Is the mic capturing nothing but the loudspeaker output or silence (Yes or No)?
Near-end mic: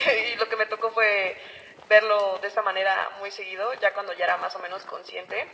Yes